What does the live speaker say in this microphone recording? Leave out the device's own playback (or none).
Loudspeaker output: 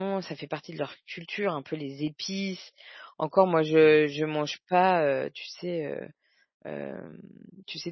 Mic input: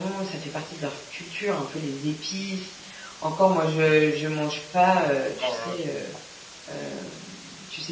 Mmh. Oh là là, tu me donnes faim.